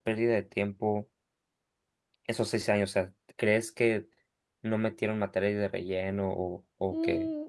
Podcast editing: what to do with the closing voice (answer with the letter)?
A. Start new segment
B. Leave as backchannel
A